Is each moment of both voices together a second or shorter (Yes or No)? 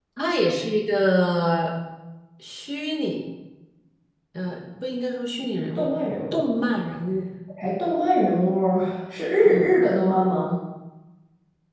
Yes